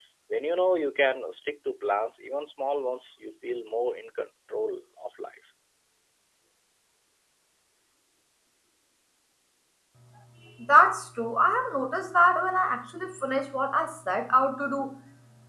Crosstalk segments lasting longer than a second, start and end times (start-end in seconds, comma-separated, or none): none